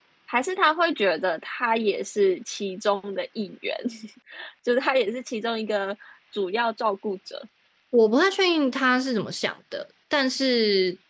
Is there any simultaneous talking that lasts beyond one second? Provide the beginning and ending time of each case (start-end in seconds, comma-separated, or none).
none